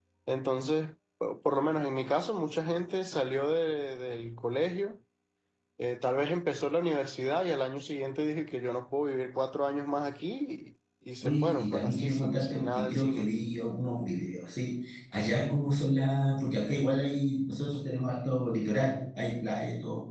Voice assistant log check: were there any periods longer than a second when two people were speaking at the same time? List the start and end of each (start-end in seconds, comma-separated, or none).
11.2-13.3